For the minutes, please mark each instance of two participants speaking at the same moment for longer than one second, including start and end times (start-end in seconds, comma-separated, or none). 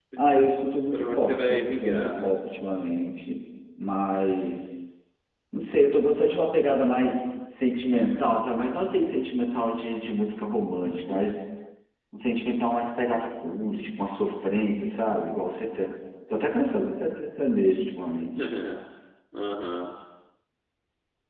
0.9-2.3